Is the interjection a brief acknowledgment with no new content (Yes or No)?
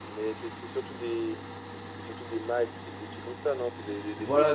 No